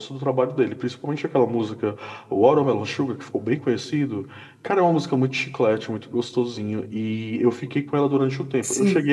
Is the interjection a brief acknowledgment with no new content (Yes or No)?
Yes